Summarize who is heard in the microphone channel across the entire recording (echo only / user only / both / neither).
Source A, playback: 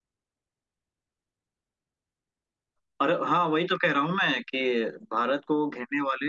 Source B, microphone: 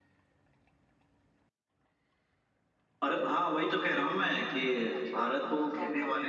both